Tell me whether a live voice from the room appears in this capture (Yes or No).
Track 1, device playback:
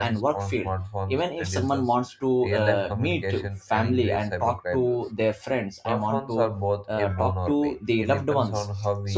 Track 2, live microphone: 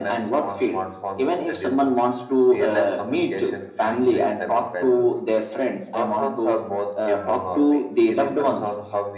No